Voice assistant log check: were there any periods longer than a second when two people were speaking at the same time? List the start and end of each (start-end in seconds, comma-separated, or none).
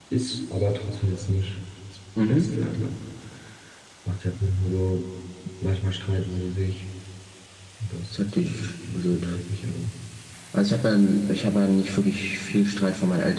8.1-9.4